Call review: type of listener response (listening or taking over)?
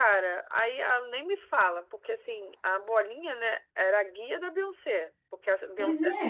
listening